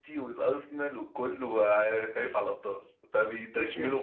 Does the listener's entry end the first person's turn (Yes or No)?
Yes